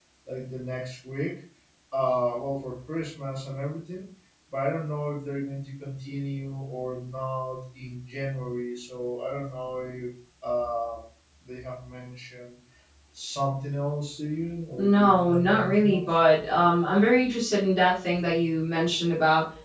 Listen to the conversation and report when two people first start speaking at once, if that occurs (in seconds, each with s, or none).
14.8 s